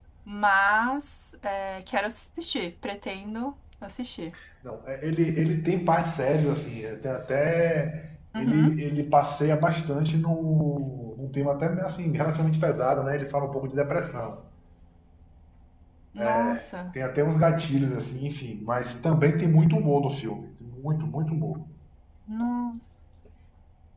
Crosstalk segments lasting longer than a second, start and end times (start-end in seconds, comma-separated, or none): none